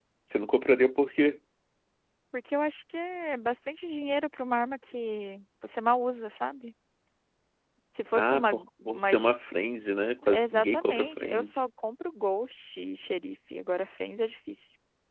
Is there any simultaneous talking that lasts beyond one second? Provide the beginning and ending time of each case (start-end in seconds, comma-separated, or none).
8.1-9.4, 10.3-11.6